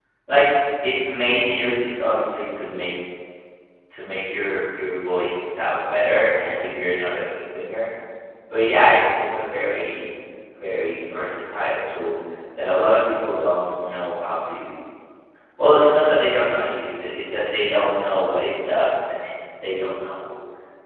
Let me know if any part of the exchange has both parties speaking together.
No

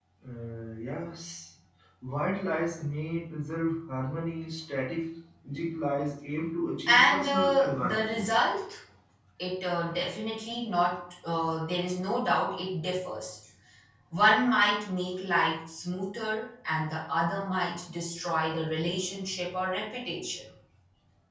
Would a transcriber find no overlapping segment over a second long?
No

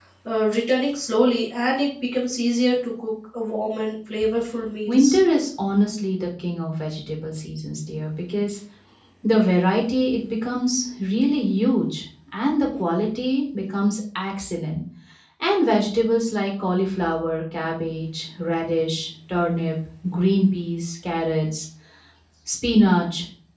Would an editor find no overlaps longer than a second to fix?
Yes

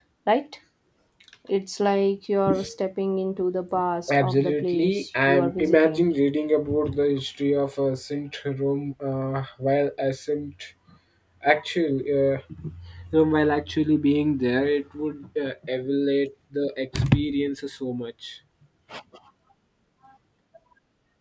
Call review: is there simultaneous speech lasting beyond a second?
Yes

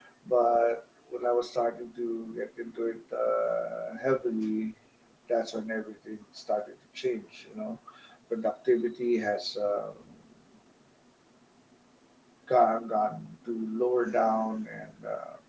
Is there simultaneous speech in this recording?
No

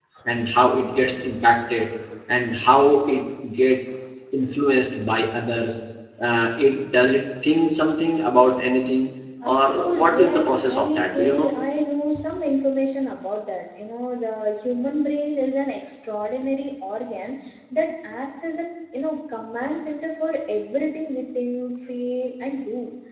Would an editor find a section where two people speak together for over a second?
Yes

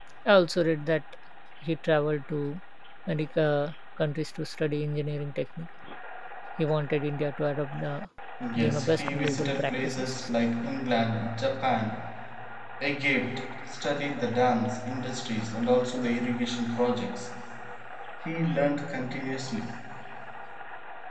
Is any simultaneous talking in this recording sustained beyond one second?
Yes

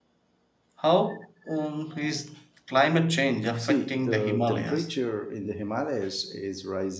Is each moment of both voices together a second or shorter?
No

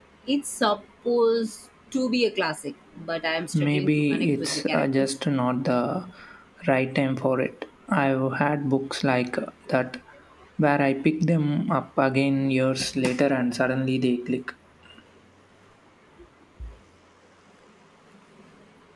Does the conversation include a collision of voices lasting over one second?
Yes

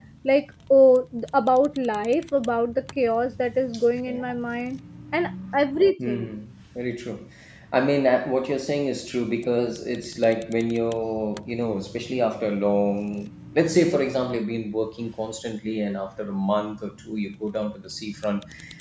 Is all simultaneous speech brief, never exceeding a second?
Yes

